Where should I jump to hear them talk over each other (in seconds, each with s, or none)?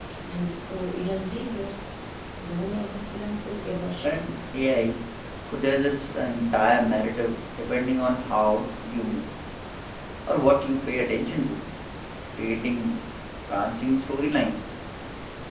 none